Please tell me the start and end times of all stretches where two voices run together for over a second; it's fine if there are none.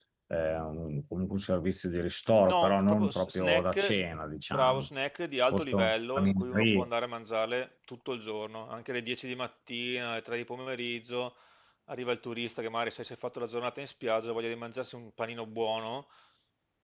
2.4-4.0, 5.5-6.9

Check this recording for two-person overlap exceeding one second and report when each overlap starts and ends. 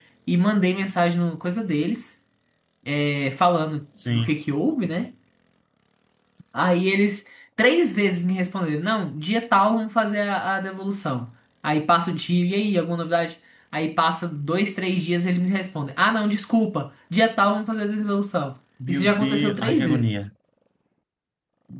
18.9-20.1

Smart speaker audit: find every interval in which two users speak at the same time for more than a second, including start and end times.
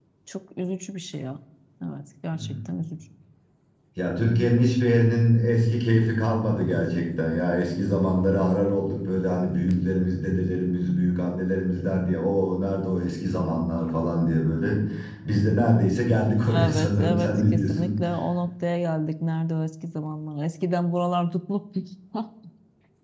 16.6-17.9

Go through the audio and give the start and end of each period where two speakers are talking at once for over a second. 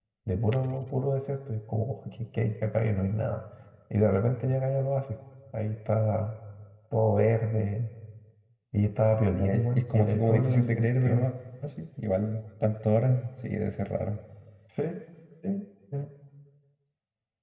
9.3-11.3

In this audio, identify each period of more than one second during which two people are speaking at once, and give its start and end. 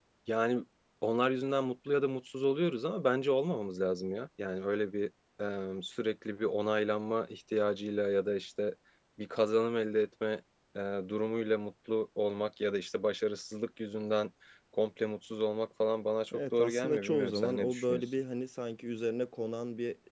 16.3-18.0

